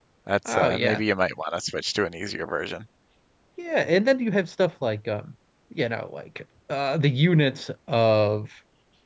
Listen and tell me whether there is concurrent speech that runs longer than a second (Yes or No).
No